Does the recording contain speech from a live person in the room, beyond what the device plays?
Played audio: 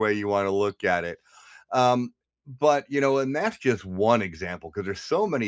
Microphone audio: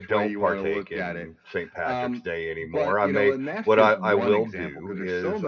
Yes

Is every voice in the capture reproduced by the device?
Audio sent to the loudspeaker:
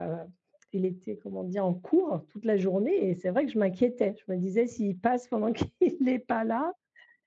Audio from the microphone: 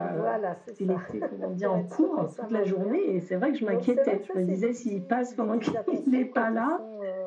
No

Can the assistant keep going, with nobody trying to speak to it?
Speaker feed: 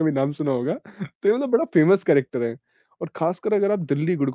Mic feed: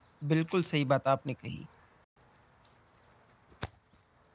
No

